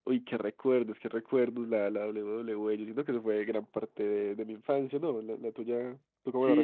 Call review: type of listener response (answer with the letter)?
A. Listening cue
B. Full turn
B